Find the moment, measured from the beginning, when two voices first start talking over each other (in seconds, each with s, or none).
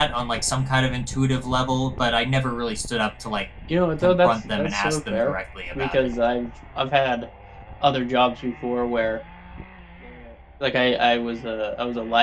4.0 s